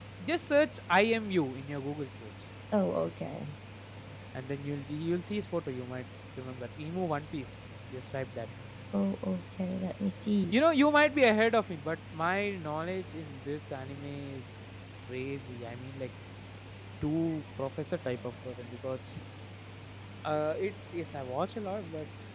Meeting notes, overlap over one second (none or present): none